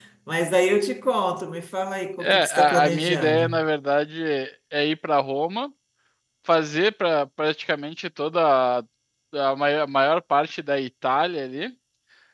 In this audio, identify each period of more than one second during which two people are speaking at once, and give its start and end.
2.2-3.6

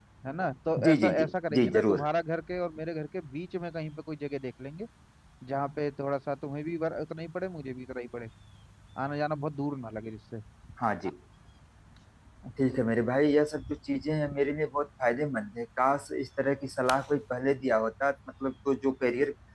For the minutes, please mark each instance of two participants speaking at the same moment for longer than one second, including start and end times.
0.8-2.1

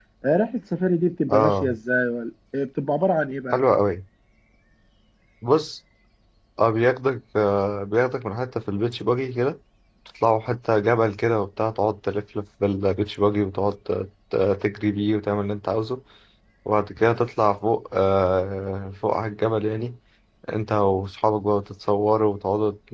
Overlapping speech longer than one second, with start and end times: none

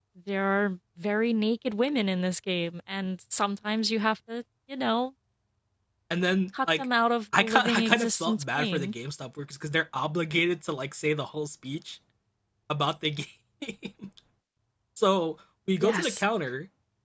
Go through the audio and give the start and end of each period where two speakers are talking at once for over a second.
7.4-8.9

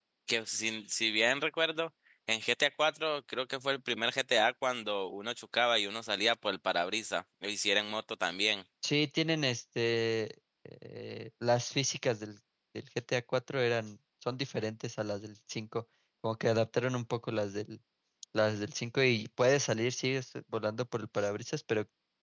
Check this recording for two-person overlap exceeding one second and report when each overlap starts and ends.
none

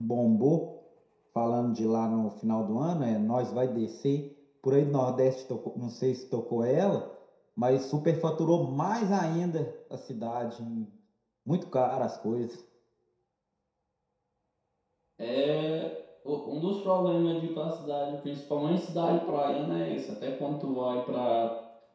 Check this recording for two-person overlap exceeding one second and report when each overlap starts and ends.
none

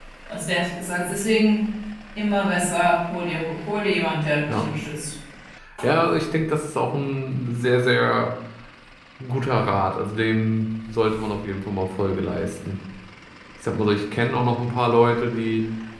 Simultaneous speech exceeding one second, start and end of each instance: none

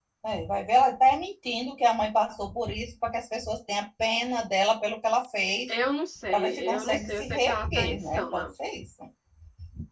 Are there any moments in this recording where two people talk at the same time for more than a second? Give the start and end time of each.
6.3-8.5

